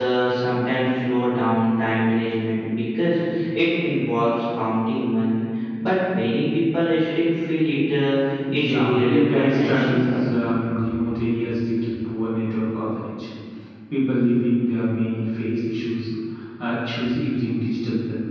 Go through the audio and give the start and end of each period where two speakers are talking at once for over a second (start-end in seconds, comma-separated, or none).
8.6-10.2